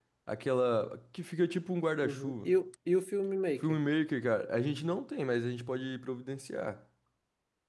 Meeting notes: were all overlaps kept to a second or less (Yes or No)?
Yes